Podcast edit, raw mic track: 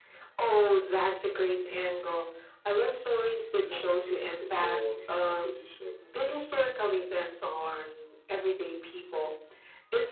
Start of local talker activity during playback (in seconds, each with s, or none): 3.5 s